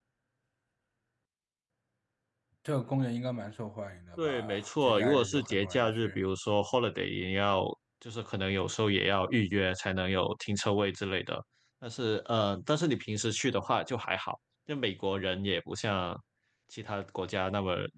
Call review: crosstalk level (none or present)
present